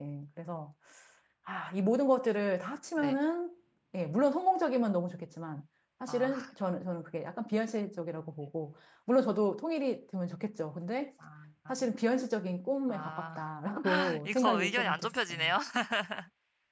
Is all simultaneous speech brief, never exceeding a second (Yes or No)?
No